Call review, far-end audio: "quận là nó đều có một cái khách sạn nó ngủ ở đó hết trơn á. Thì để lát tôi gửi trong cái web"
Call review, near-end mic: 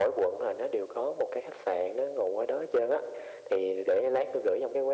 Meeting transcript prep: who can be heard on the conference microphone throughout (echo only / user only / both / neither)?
echo only